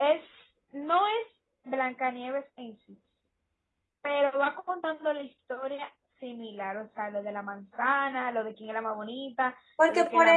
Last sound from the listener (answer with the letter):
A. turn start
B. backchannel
A